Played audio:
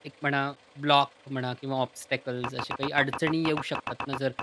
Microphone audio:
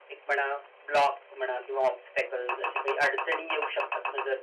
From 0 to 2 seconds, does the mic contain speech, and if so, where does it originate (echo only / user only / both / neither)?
echo only